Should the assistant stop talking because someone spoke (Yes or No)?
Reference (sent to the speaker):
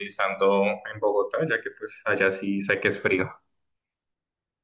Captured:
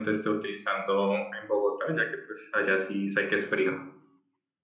No